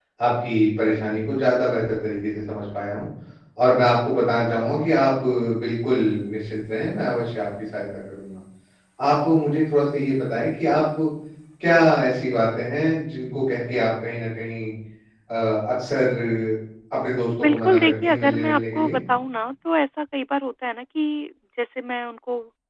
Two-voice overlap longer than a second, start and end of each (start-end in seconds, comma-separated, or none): 17.4-19.0